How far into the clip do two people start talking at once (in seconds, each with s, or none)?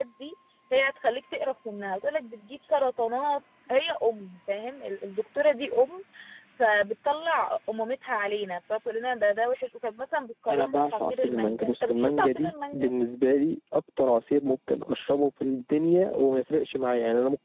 10.5 s